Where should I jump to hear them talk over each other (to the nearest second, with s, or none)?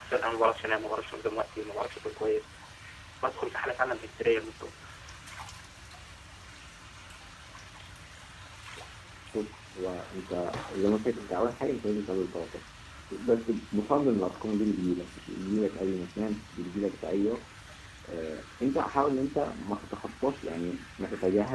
none